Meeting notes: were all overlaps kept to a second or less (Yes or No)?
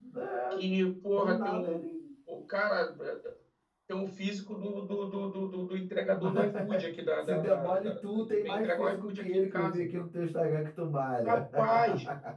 No